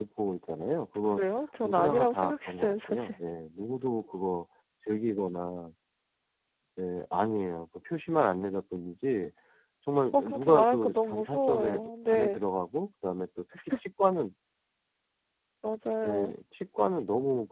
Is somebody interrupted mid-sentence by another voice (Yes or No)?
Yes